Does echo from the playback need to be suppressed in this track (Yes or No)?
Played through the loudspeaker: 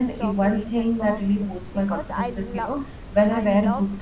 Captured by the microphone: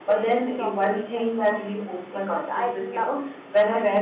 Yes